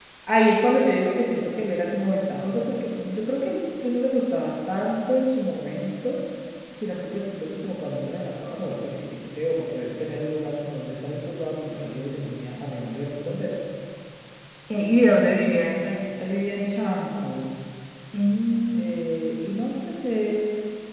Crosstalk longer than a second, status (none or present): none